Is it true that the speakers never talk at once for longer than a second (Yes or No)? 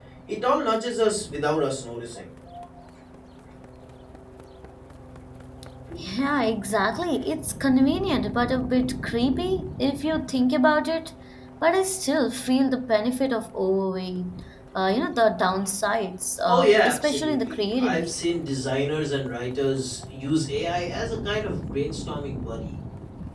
No